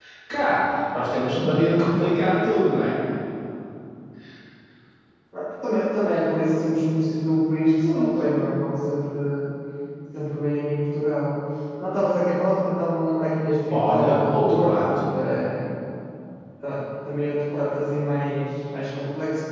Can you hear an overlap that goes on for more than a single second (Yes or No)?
Yes